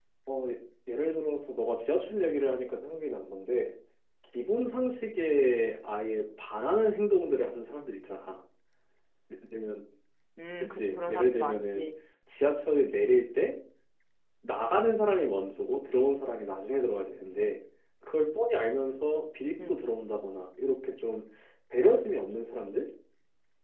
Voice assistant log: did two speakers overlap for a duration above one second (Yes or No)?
Yes